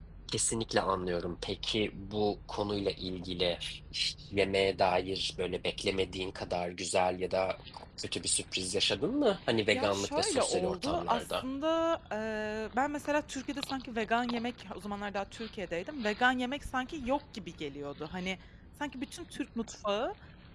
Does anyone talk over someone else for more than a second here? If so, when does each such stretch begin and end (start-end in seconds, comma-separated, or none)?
9.7-11.4